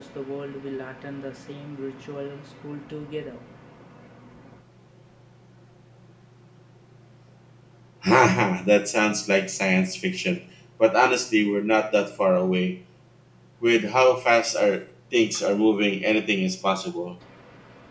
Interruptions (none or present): none